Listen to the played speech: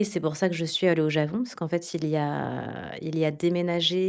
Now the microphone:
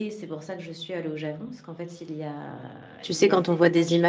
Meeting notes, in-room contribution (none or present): present